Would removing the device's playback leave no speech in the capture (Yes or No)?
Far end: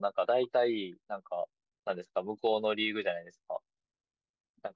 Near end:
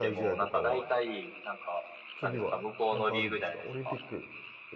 No